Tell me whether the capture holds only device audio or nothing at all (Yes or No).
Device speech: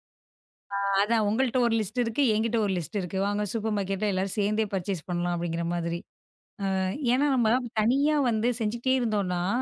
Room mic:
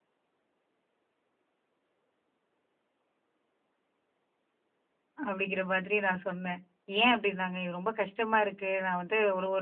No